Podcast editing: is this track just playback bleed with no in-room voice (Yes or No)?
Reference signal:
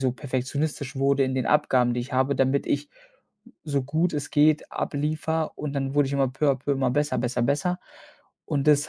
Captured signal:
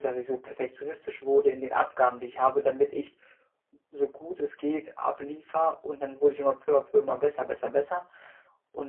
Yes